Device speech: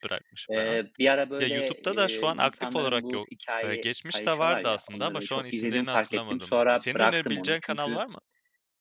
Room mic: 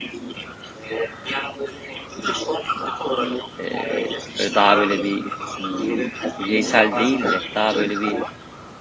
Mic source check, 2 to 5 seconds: both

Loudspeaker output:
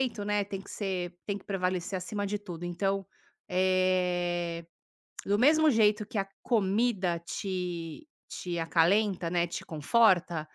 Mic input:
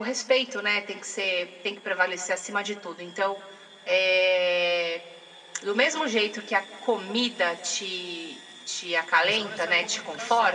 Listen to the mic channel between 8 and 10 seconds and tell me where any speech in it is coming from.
both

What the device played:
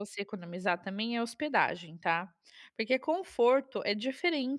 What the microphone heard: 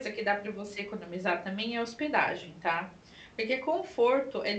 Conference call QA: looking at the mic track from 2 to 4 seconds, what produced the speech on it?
echo only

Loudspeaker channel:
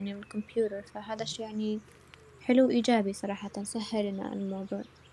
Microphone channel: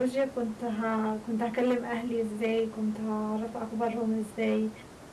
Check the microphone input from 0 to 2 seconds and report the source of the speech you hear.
user only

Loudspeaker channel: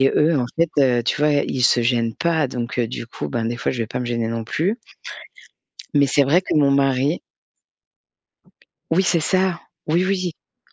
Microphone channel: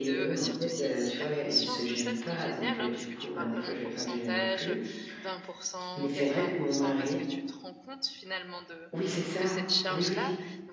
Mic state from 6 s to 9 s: both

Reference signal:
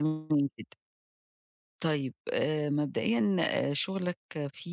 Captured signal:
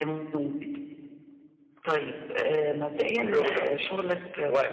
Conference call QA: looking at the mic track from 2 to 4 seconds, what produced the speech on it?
both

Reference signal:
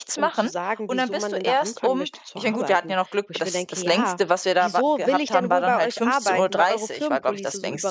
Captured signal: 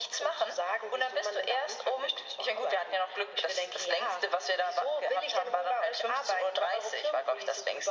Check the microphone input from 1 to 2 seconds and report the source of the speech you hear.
echo only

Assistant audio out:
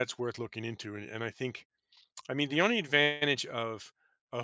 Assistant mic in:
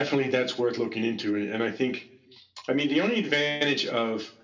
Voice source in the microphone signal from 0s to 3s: echo only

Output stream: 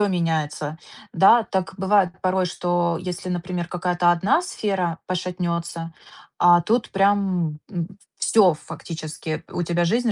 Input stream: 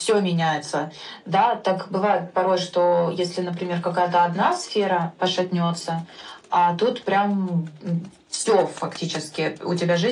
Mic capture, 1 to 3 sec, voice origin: echo only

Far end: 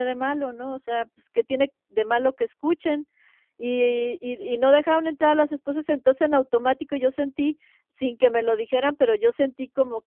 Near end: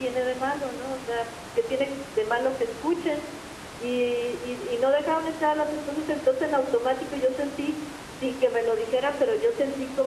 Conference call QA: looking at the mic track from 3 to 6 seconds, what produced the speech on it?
echo only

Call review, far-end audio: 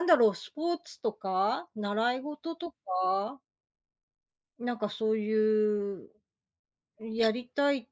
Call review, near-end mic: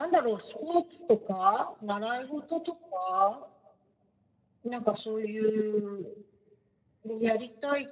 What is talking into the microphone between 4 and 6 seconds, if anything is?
echo only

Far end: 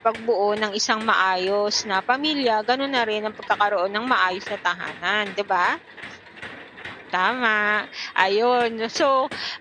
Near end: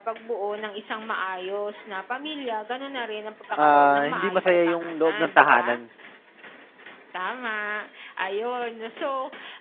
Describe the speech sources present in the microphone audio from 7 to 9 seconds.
echo only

